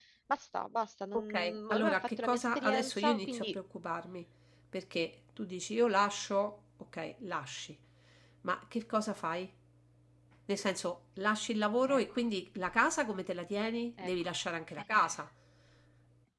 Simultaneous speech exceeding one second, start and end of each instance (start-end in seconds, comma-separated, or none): 1.1-3.5